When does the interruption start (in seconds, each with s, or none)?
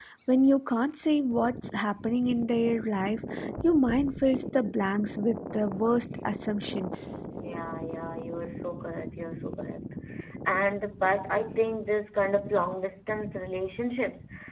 none